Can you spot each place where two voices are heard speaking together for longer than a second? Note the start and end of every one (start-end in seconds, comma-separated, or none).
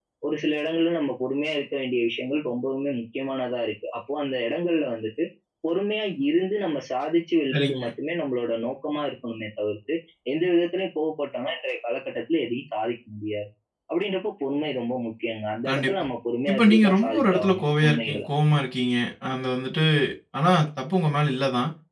16.5-18.2